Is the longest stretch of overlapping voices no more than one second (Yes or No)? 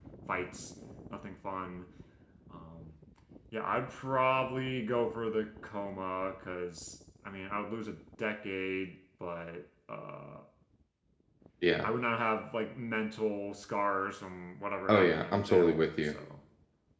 No